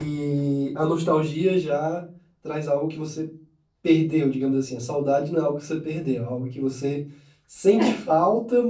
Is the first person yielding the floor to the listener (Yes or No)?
No